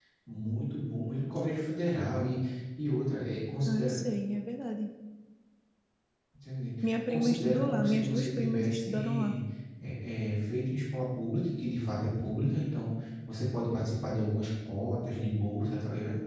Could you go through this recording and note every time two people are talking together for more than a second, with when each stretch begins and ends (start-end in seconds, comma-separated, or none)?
7.1-9.4